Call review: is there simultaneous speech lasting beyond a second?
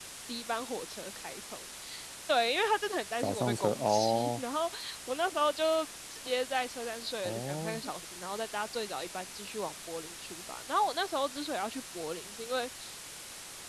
Yes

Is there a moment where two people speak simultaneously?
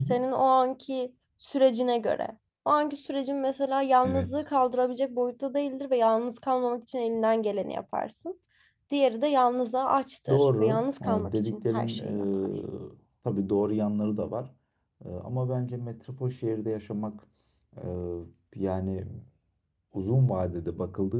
Yes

